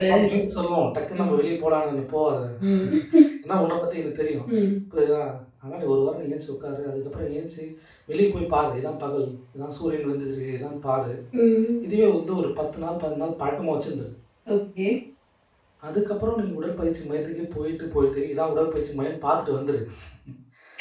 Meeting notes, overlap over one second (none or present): none